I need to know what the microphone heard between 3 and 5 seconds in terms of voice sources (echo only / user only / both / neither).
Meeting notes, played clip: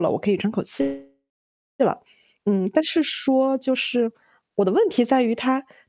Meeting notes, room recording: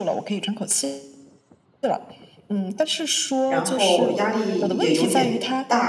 both